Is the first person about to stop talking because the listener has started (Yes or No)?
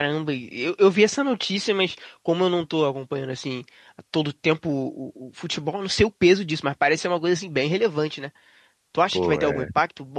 No